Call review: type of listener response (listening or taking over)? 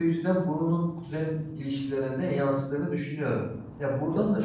listening